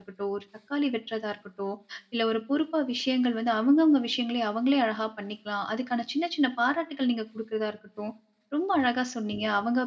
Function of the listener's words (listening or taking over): listening